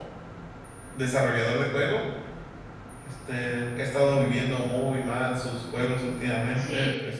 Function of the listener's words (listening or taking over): taking over